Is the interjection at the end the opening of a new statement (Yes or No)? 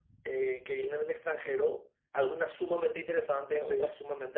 No